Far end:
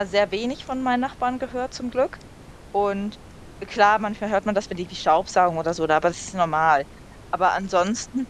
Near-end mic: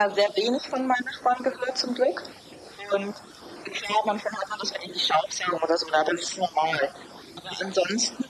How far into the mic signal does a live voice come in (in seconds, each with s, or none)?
none